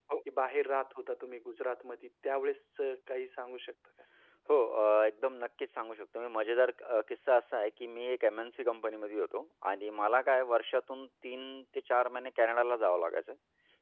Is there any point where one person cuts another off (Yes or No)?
No